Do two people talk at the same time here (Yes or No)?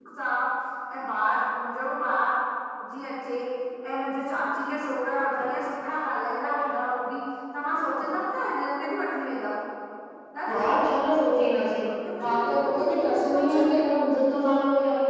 Yes